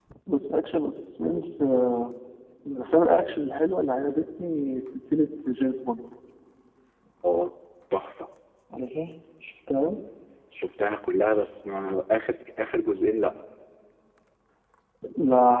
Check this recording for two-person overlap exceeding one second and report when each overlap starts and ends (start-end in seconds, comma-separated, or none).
none